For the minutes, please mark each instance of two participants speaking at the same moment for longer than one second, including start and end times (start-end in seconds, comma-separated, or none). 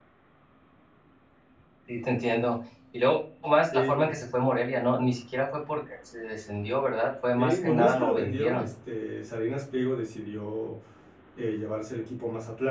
7.4-8.7